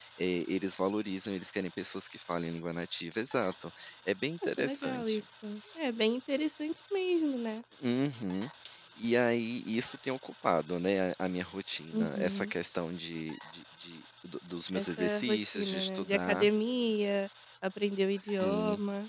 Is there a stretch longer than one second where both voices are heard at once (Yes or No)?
Yes